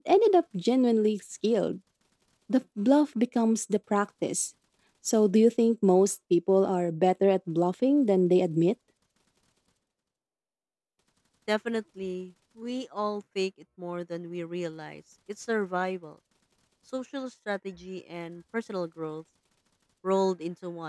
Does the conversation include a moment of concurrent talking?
No

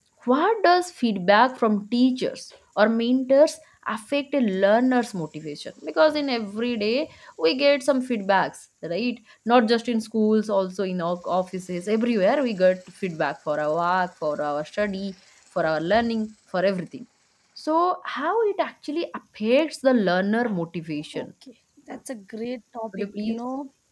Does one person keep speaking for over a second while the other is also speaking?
No

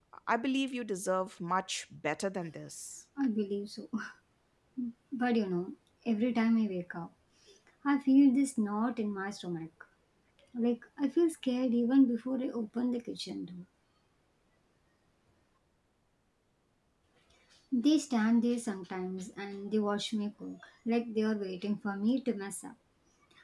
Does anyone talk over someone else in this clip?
No

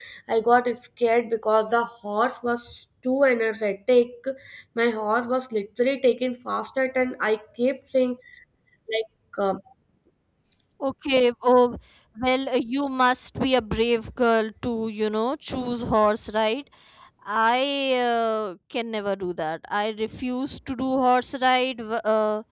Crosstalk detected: No

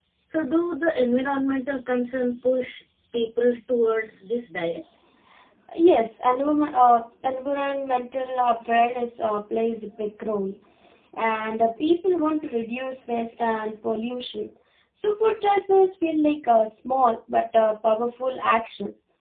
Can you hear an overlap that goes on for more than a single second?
No

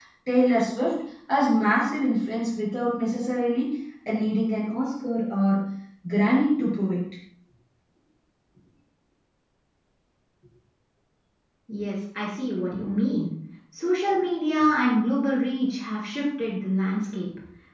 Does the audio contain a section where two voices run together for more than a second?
No

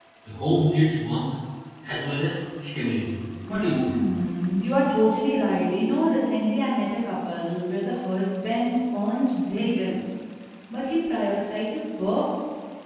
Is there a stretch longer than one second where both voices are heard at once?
No

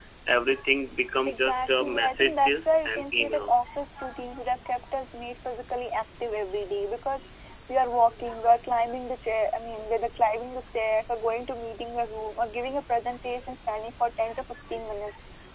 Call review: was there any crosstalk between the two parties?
Yes, from 1.3 s

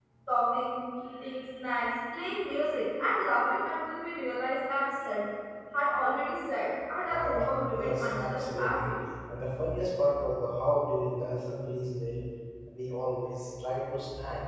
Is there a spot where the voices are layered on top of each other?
Yes, from 7.1 s

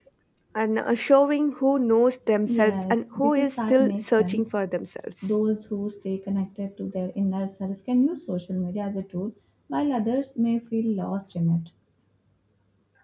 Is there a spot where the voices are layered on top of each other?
Yes, from 2.5 s

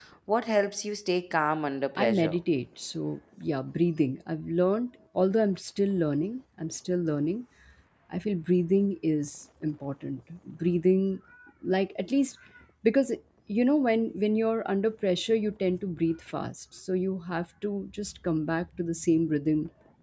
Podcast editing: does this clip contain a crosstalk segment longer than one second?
No

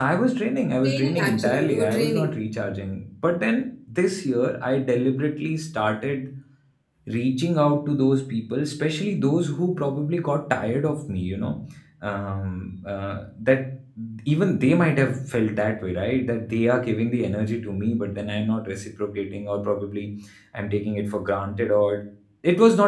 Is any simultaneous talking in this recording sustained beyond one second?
Yes, from 0.8 s

